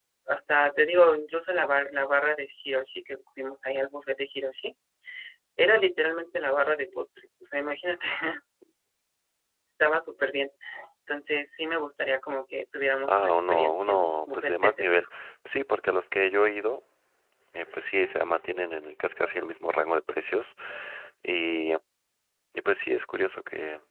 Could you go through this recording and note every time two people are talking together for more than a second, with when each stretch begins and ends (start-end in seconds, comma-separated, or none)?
13.1-15.1